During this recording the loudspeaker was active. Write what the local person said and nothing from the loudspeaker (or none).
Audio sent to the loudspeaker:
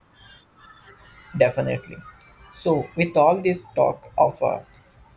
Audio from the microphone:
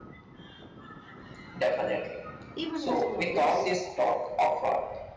even in small ways.